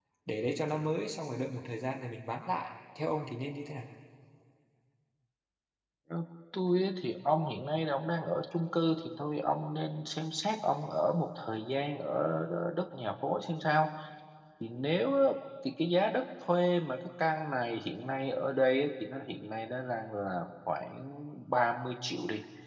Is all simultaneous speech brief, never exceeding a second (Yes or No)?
Yes